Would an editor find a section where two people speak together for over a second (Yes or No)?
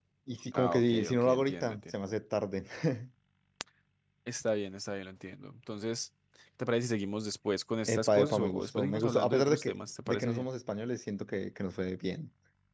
Yes